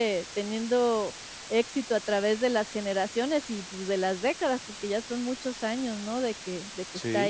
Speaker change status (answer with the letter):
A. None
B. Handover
B